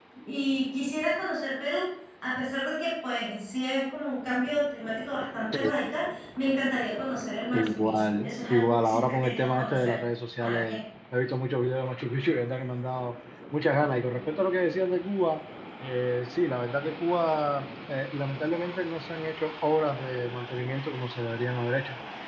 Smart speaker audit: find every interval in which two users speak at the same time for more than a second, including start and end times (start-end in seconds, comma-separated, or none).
7.5-9.9